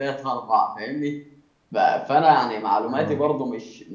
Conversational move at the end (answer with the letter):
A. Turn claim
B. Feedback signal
B